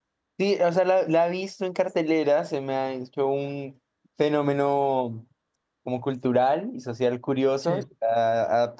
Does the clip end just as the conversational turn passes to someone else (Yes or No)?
No